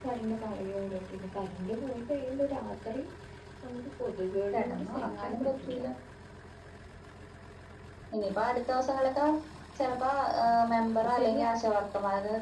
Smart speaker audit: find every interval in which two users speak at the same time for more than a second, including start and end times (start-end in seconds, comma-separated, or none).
4.5-5.8